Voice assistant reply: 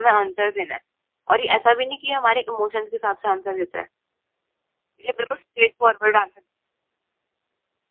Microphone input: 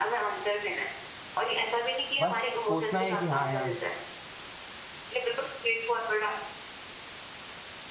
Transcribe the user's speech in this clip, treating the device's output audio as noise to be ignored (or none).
बस सोचना है कि हाँ यार